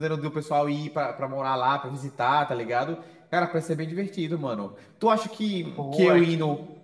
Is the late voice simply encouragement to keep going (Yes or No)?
Yes